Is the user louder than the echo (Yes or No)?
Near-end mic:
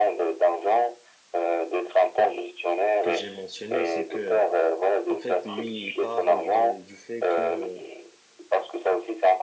No